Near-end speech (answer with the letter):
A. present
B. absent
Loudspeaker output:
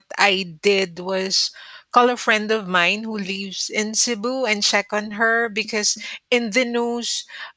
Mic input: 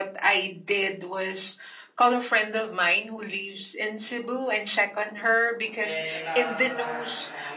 A